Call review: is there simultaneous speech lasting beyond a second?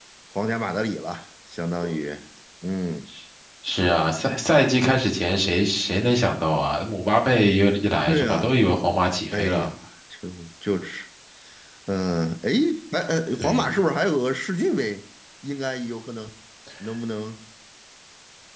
No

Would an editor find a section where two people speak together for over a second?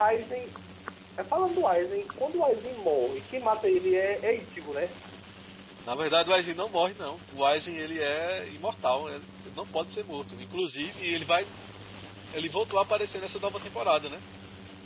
No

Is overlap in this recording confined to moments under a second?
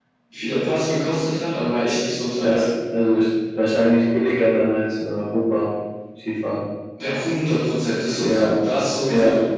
Yes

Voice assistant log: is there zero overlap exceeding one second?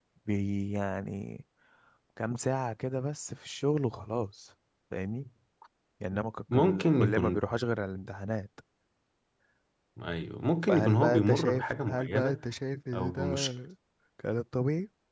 No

